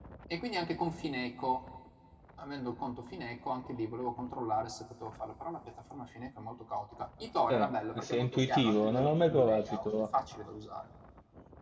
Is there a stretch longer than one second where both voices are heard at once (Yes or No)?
Yes